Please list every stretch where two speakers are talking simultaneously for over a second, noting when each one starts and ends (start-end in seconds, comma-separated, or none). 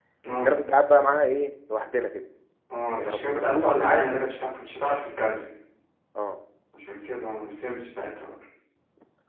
3.0-4.4